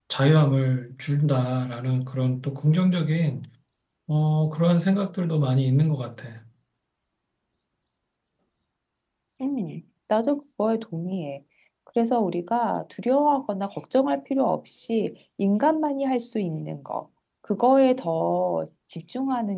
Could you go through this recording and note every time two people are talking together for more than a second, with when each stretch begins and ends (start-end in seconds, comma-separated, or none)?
none